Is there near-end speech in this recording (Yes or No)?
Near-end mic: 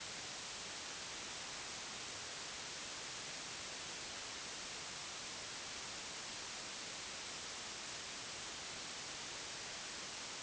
No